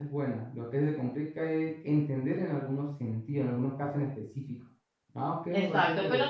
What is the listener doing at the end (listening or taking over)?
taking over